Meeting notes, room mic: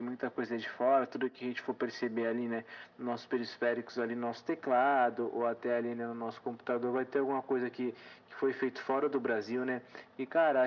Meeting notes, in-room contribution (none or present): none